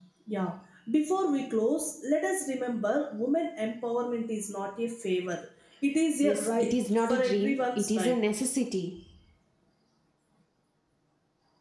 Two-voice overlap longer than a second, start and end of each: 6.2-8.2

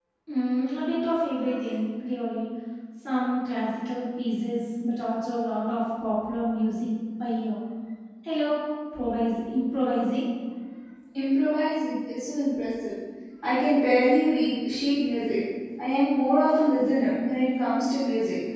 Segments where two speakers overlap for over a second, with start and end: none

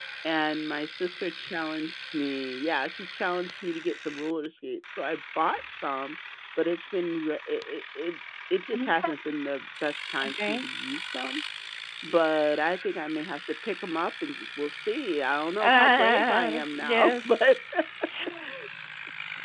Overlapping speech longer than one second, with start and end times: 15.6-17.4

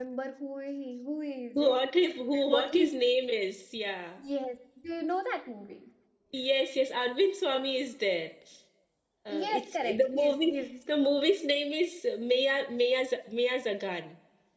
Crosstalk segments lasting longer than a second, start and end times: 9.3-10.7

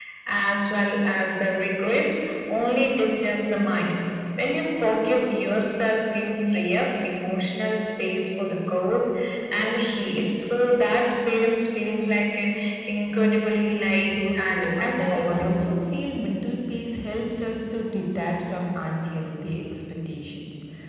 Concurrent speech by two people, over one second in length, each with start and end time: 14.0-15.6

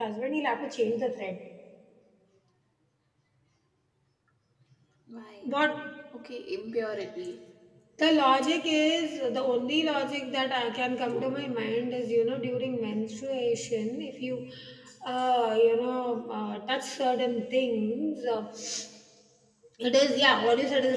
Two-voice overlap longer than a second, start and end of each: none

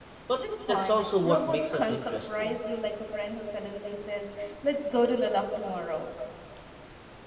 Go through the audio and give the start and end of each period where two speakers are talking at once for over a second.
0.7-2.6

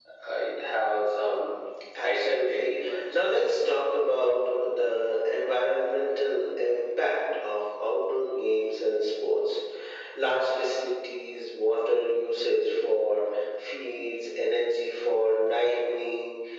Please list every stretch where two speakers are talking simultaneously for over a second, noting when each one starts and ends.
2.0-3.2

